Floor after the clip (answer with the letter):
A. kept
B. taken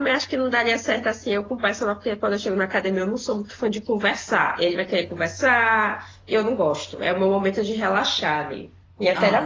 B